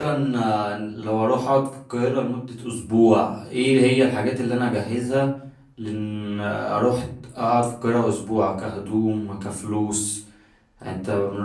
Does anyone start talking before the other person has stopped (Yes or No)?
No